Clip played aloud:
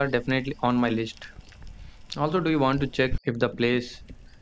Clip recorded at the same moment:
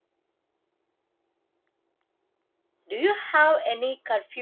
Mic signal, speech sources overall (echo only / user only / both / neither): user only